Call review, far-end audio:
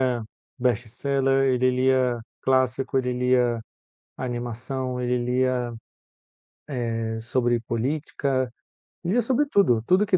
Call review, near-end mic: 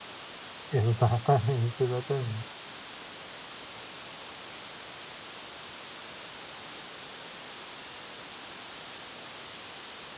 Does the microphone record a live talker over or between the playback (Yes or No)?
Yes